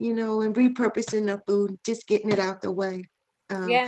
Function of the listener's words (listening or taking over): taking over